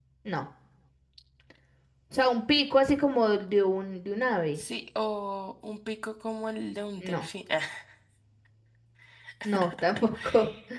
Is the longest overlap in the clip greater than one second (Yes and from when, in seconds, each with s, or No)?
No